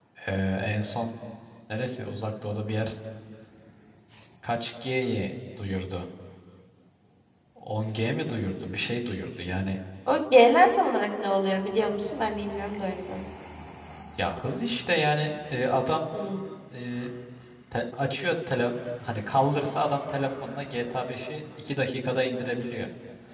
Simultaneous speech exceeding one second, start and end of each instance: none

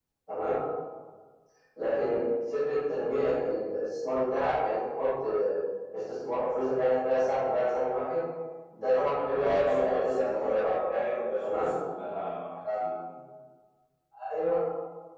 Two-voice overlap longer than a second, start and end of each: 9.3-10.7

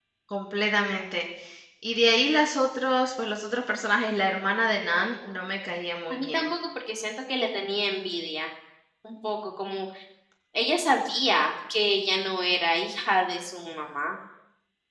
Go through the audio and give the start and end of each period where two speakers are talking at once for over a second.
none

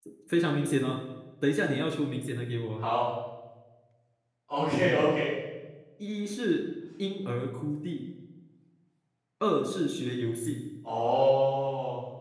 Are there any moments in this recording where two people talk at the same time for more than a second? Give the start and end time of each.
none

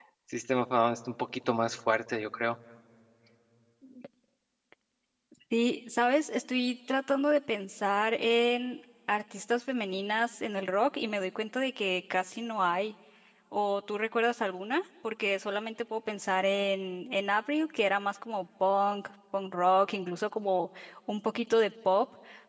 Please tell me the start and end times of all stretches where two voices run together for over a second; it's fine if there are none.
none

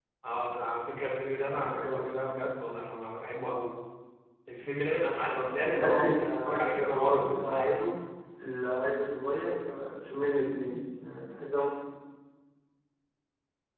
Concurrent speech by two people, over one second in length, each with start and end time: 5.2-7.9

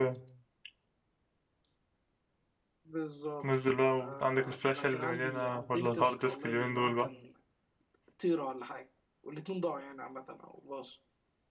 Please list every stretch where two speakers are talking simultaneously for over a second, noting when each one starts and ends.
4.0-7.1

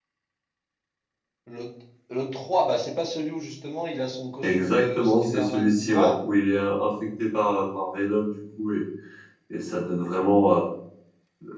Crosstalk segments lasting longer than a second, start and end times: 4.4-6.1

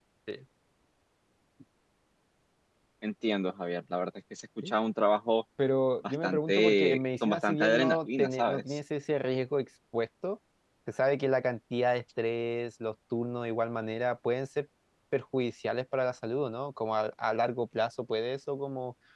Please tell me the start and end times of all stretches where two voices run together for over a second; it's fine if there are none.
6.1-8.8

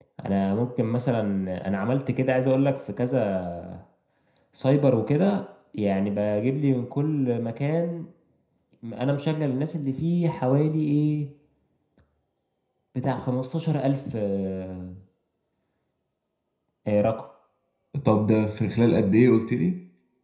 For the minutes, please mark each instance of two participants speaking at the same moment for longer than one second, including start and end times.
none

